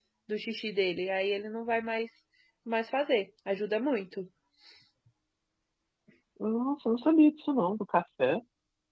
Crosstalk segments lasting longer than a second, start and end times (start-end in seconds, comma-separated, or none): none